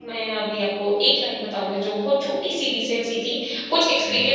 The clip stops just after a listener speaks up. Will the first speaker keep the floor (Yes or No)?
Yes